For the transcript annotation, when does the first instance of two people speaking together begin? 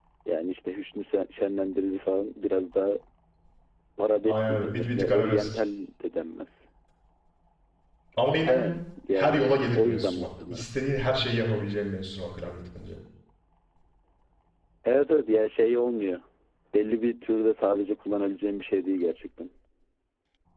4.3 s

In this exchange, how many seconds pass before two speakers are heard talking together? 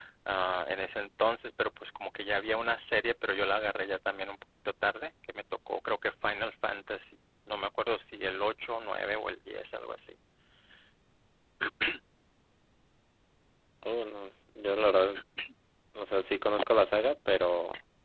none

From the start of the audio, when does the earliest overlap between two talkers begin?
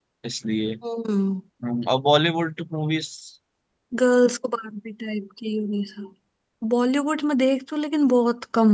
none

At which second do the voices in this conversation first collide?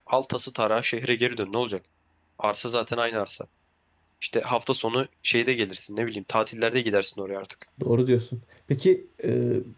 none

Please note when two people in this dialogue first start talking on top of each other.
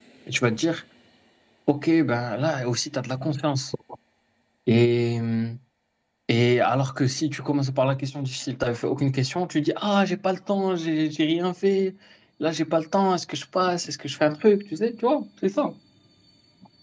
none

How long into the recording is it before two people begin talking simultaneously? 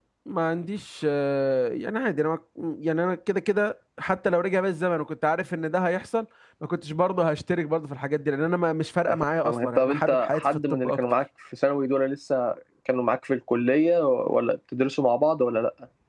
9.4 s

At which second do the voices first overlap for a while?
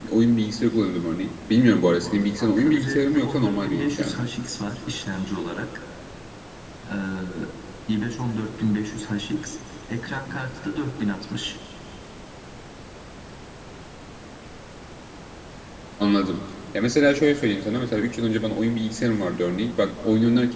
2.4 s

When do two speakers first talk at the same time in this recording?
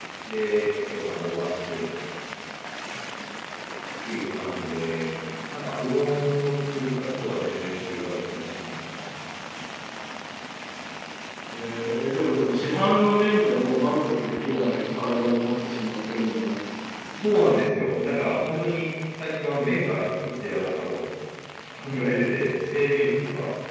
none

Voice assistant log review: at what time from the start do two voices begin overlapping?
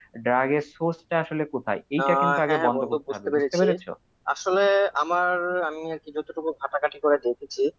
2.0 s

